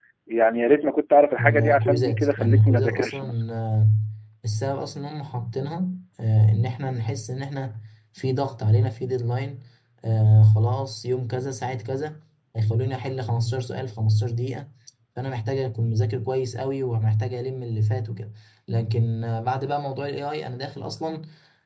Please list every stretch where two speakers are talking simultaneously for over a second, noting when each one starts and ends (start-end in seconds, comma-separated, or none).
1.4-3.4